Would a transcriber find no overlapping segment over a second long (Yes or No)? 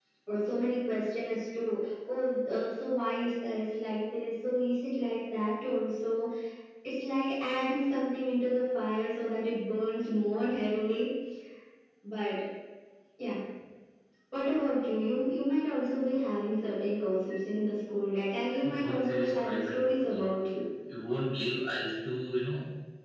No